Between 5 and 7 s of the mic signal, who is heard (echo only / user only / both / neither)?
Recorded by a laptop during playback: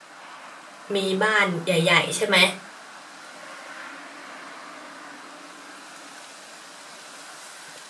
neither